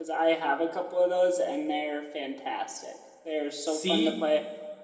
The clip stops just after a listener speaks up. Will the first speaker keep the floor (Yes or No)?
Yes